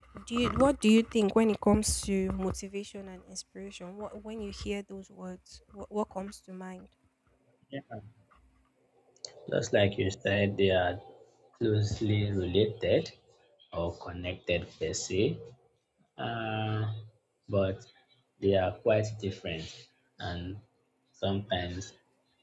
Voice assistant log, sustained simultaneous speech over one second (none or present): none